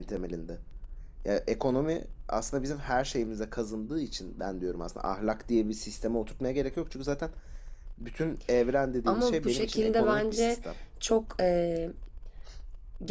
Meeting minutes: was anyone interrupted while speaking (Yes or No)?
Yes